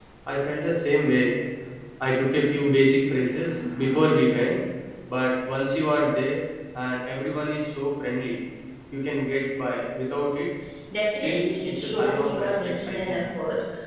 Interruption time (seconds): 11.2 s

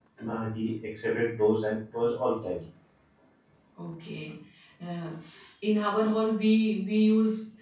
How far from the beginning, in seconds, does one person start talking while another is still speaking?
none

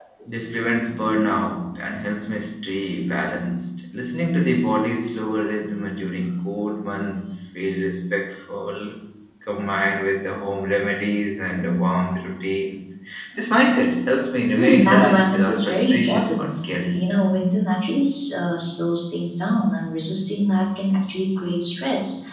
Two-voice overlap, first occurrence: 14.6 s

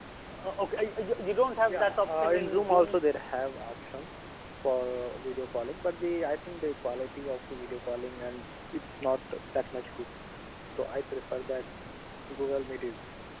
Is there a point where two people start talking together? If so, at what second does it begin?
1.6 s

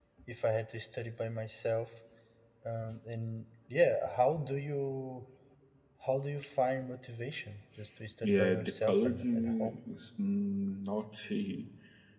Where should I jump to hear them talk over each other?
8.2 s

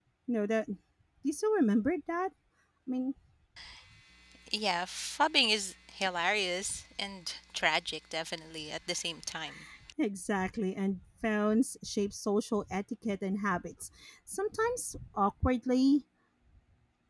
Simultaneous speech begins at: none

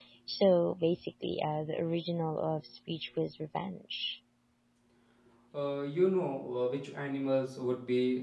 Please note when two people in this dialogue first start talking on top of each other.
none

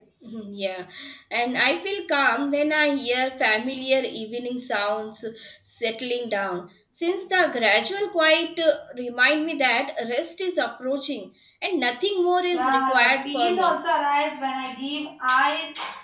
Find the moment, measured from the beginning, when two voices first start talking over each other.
12.5 s

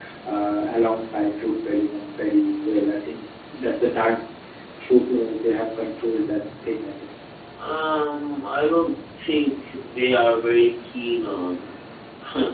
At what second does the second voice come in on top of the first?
none

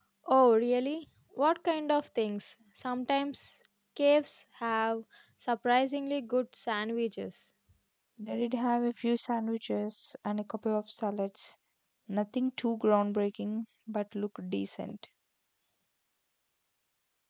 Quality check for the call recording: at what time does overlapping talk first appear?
none

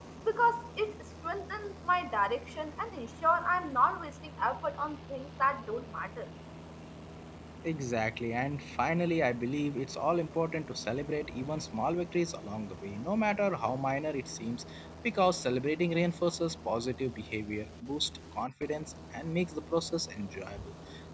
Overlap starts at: none

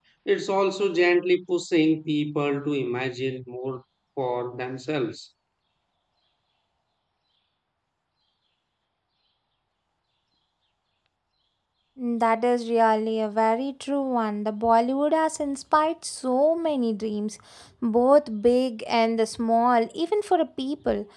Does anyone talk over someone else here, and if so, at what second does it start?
none

